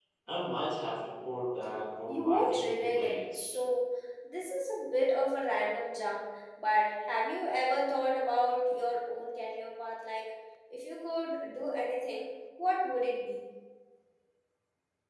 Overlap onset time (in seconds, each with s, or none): 2.1 s